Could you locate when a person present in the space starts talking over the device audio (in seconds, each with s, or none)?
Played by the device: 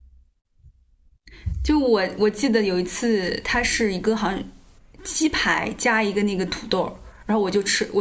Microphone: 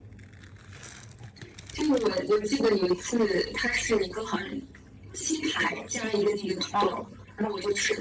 6.7 s